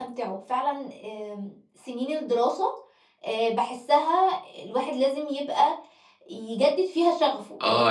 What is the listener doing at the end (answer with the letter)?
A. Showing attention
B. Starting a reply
B